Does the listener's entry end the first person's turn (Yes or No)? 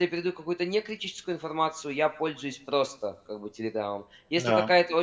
No